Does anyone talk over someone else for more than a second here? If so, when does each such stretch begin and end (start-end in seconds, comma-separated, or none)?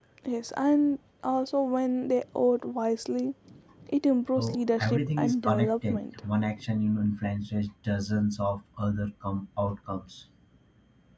4.4-6.2